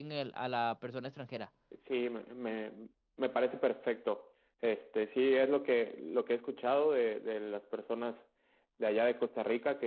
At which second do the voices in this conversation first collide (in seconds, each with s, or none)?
none